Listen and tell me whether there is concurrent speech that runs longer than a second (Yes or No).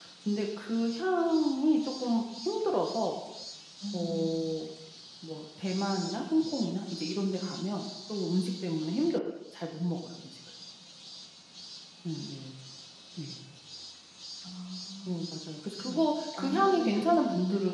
Yes